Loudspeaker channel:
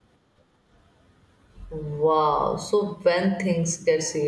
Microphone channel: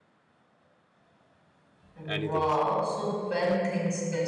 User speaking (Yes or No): Yes